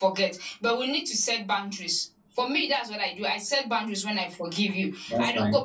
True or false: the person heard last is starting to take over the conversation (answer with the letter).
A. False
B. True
A